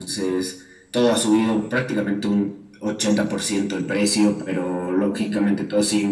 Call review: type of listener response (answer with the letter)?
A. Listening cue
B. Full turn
A